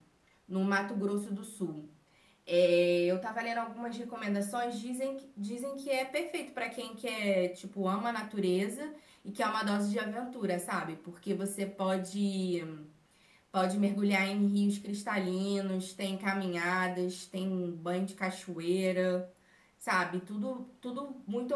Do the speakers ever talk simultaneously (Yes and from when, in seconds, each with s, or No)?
No